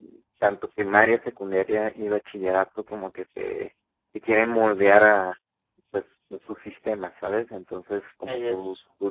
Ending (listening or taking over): listening